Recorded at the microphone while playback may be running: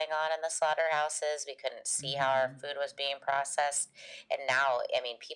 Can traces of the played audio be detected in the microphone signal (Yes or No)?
Yes